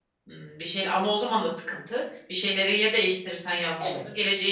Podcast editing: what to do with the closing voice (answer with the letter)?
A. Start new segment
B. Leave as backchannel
A